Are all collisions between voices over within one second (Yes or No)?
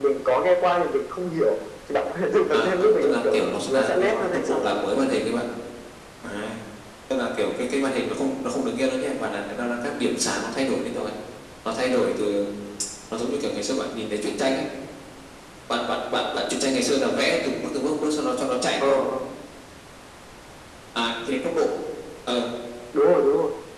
No